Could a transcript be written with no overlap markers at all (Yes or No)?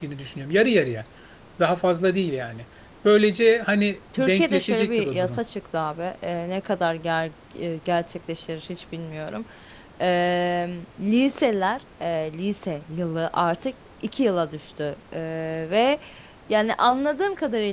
No